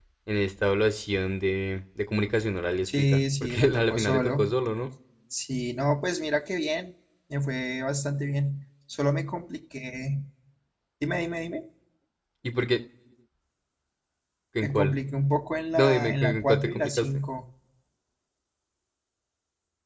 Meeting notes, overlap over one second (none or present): present